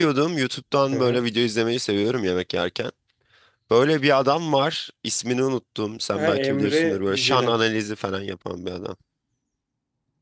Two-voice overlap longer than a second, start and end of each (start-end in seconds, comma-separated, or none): 6.2-7.6